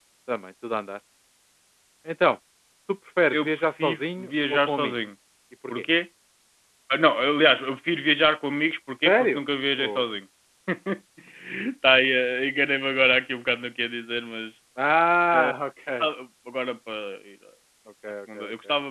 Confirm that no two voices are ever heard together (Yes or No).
No